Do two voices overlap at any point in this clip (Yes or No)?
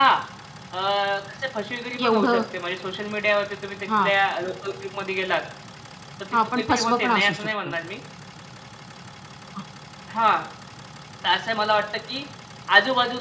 Yes